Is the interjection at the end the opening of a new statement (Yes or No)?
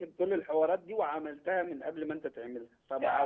Yes